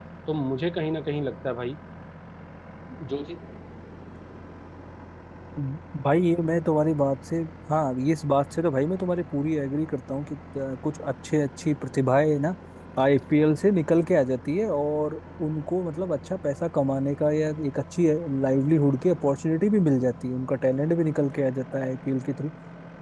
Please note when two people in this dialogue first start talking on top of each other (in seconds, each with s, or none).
none